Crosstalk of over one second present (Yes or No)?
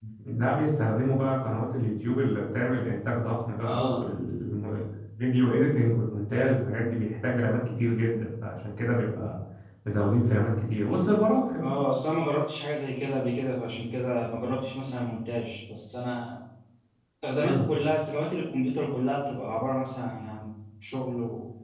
No